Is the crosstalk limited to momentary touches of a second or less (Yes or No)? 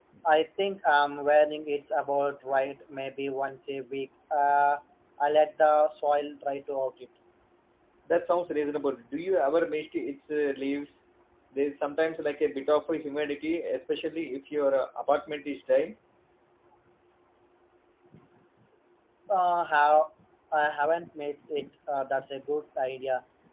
Yes